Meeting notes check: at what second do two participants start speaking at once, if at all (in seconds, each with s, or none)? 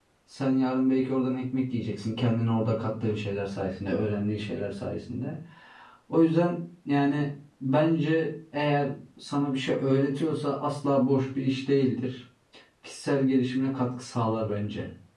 none